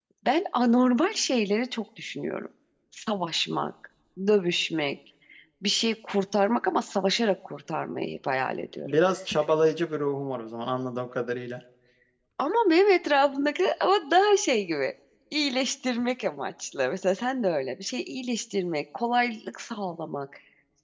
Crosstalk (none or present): none